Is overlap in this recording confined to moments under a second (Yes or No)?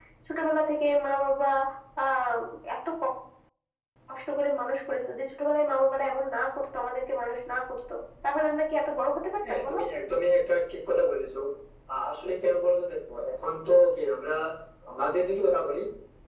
Yes